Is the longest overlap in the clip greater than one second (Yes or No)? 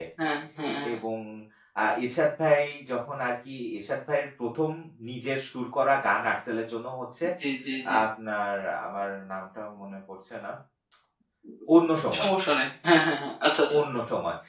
No